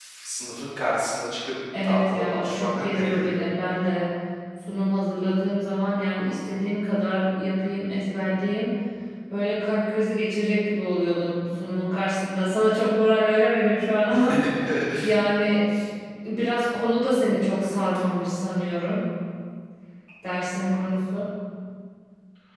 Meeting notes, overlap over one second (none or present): present